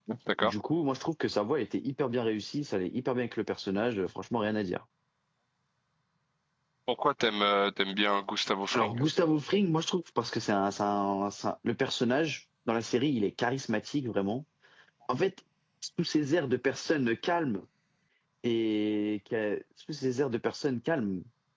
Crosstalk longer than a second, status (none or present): none